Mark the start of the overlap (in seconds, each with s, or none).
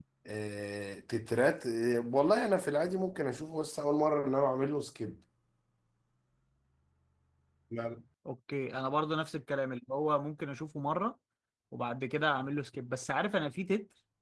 none